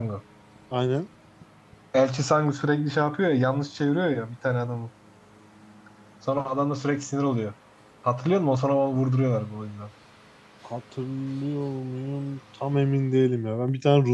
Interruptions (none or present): none